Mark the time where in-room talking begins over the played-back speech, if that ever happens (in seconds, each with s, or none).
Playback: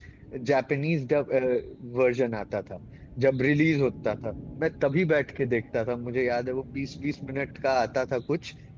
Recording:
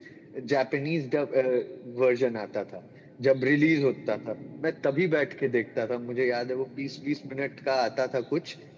none